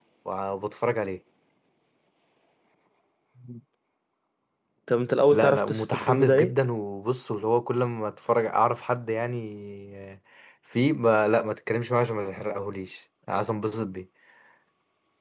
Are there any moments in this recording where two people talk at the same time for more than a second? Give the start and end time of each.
5.3-6.5

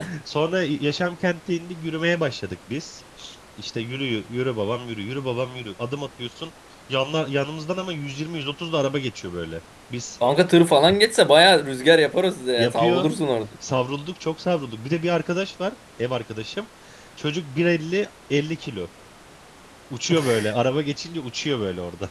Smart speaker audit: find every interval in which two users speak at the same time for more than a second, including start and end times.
none

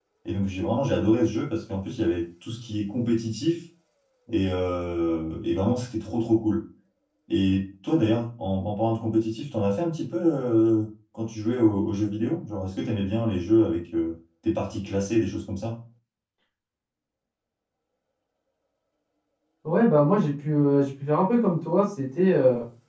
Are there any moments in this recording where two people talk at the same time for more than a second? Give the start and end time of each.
none

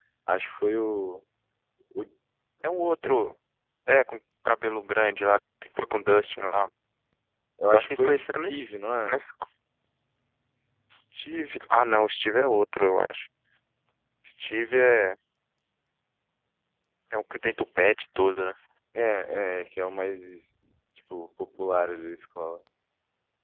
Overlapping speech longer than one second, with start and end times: 7.7-9.2

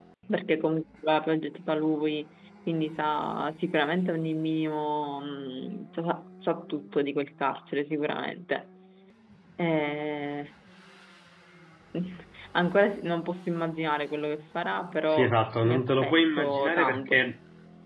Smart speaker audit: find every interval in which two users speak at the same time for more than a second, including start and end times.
15.1-17.2

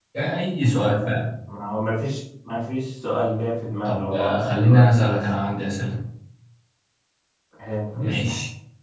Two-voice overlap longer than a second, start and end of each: 3.8-5.2

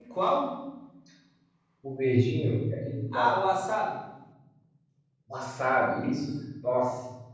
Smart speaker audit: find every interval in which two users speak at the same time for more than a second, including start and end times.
none

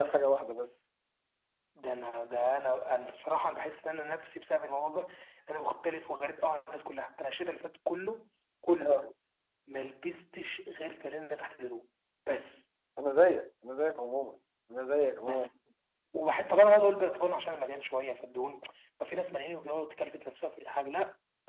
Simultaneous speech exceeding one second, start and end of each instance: none

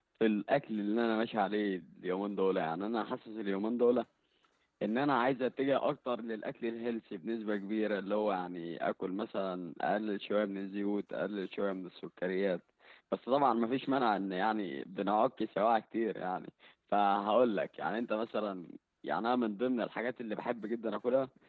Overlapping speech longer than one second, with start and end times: none

